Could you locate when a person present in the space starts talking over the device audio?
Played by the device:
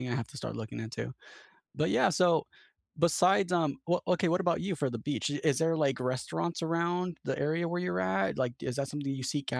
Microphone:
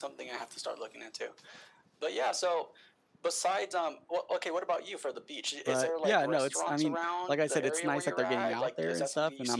5.6 s

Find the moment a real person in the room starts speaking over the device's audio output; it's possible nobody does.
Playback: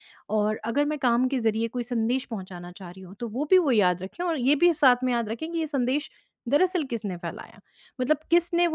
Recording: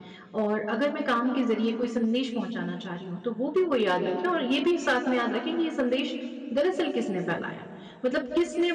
none

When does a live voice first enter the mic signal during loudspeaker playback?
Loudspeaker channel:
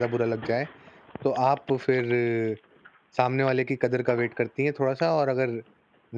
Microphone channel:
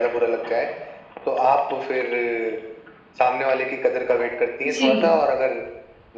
4.7 s

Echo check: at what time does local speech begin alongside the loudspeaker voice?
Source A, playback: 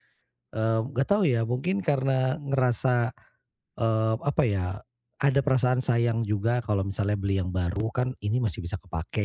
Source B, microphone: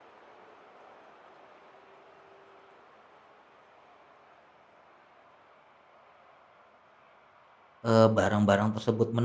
7.8 s

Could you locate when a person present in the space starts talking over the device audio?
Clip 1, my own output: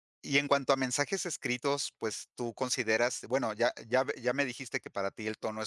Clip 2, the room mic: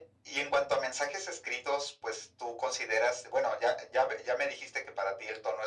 none

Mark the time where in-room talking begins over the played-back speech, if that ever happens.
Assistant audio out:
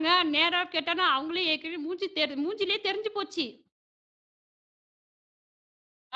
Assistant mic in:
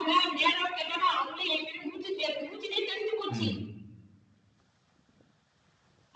3.3 s

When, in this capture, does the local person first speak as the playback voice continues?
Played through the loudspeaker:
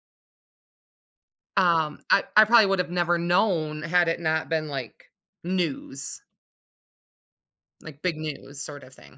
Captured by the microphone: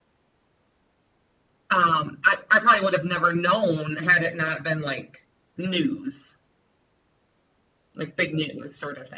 none

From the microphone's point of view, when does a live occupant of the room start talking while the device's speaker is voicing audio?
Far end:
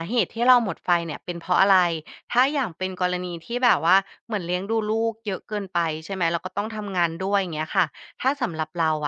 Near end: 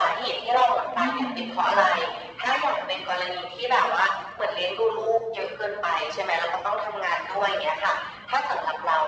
1.0 s

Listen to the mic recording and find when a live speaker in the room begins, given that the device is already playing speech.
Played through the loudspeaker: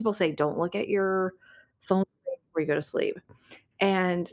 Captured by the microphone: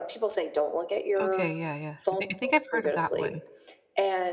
1.2 s

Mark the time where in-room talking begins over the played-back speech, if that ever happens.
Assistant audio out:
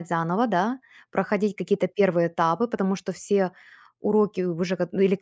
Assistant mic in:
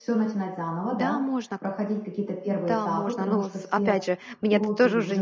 0.9 s

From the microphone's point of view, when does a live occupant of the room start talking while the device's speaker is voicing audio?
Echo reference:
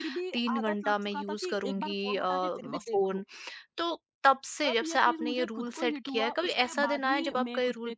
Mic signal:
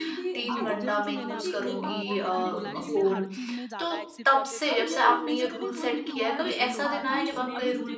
0.5 s

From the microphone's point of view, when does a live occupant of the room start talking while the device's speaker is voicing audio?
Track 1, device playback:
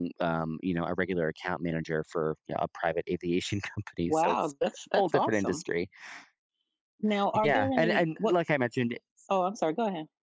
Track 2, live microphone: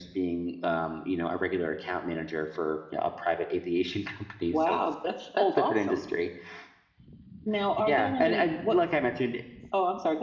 none

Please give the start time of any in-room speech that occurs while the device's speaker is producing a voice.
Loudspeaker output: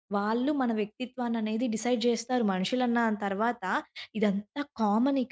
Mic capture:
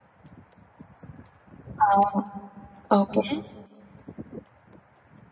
1.9 s

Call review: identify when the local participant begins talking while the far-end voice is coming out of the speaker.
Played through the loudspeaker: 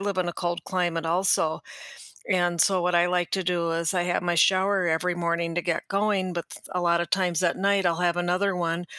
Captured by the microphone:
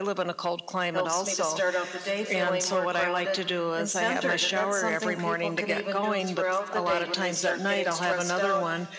0.9 s

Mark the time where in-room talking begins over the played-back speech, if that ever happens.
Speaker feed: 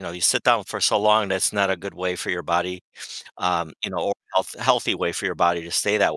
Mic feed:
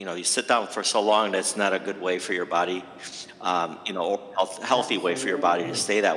4.7 s

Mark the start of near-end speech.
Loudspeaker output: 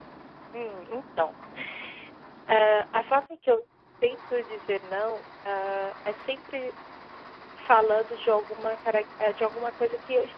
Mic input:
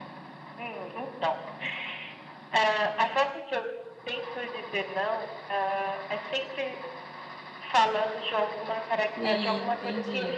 9.2 s

